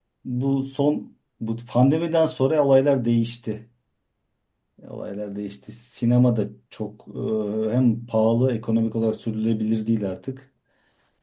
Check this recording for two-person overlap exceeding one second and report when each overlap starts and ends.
none

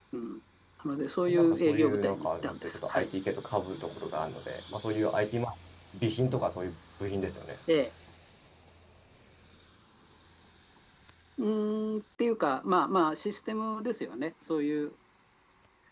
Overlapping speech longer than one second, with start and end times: 1.3-3.1

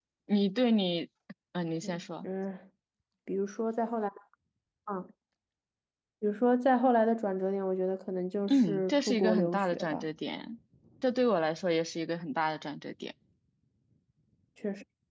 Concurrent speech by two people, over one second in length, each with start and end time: 8.5-10.1

